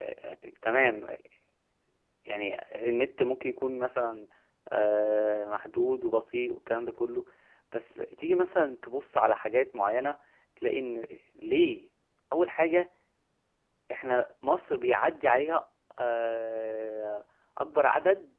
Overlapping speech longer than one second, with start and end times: none

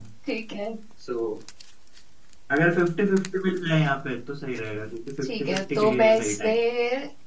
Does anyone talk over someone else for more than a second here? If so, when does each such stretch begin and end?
5.2-6.5

